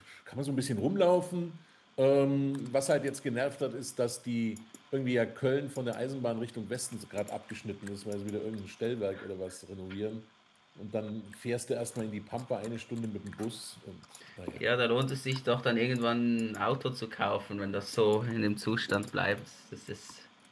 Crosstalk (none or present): none